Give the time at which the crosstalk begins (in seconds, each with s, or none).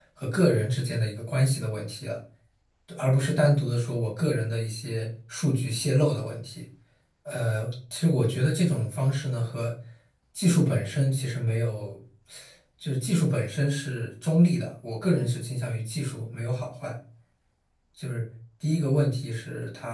none